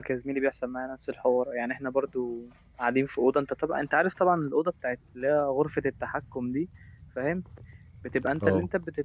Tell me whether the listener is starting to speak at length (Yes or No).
No